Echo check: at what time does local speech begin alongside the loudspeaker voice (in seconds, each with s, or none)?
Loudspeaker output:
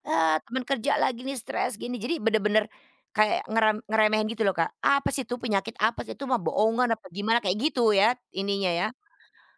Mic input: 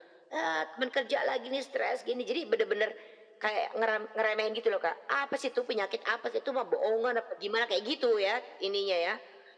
none